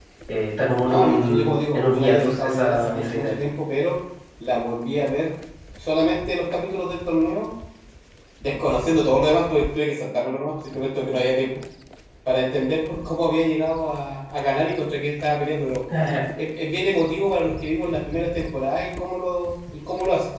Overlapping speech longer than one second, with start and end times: 0.8-3.3

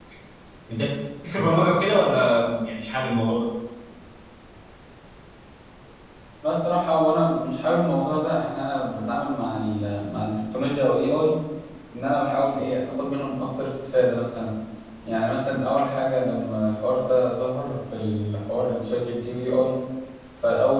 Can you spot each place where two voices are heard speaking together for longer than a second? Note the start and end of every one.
none

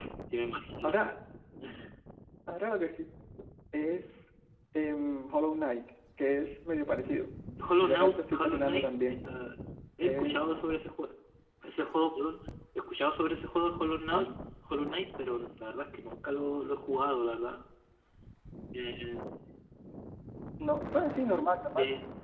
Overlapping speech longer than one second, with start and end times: 7.8-9.2

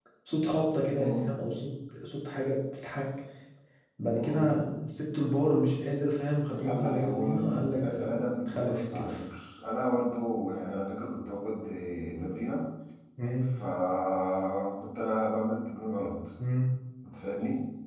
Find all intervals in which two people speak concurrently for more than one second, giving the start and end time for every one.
6.6-9.2

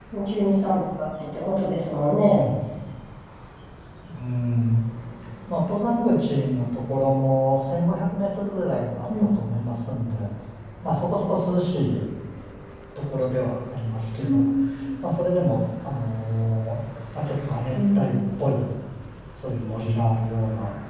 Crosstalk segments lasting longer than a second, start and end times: none

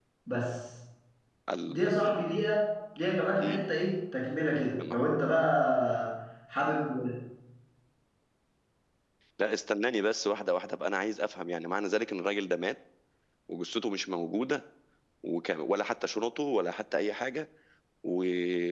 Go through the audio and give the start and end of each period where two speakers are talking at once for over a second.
none

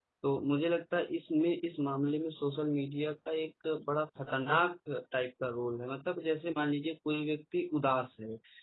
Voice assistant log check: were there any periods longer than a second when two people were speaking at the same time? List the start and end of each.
none

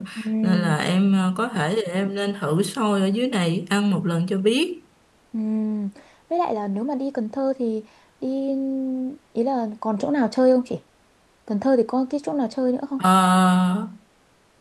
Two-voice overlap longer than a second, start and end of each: none

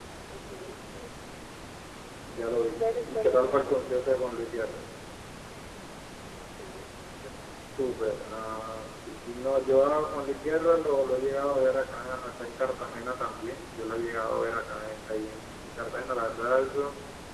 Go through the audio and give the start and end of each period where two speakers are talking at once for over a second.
2.5-3.8

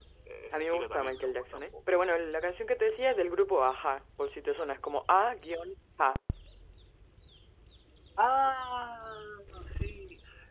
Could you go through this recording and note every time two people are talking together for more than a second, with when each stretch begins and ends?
0.5-1.7

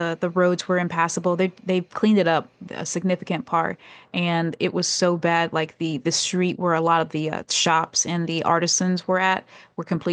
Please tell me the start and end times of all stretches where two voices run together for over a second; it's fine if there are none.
none

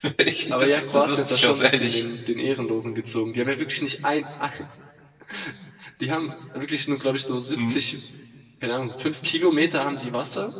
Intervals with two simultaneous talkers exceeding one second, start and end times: 0.5-2.0

